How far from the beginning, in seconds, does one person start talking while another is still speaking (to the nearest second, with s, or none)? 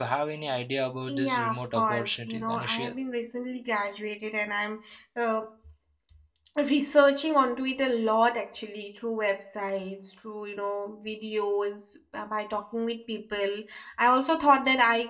1 s